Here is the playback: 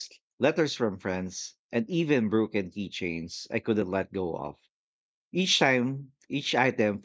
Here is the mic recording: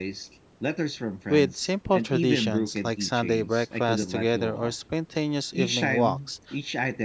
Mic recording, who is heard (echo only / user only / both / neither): both